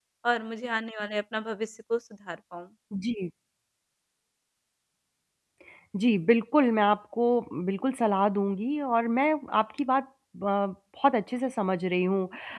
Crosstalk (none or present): none